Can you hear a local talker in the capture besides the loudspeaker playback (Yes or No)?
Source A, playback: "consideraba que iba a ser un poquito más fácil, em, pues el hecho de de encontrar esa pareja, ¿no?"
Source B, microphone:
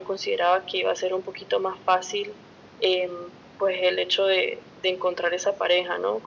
No